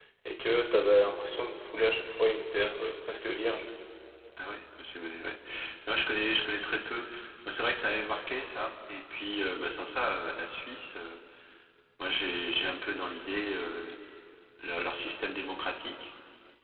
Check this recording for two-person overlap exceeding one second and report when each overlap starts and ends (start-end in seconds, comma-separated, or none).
none